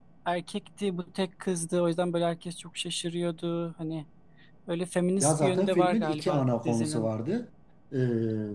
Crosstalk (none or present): present